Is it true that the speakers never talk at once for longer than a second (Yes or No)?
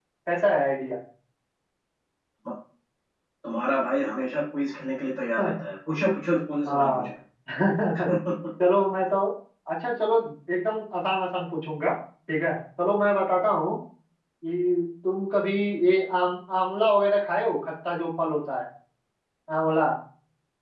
Yes